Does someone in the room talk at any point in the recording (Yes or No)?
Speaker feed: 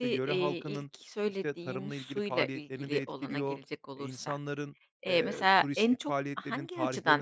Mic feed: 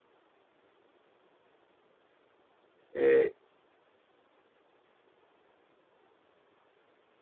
Yes